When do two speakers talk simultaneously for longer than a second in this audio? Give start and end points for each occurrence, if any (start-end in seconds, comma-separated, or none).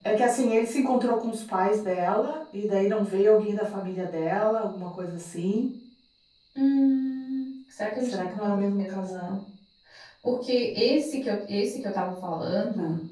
8.0-9.3